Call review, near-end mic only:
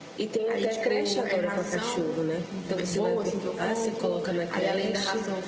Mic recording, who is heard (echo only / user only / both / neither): both